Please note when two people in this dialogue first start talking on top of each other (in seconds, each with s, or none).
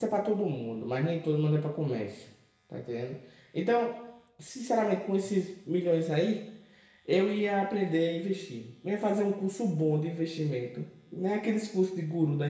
none